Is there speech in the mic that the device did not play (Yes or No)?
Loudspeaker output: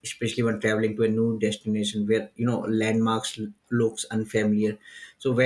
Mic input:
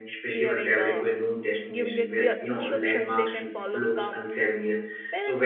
Yes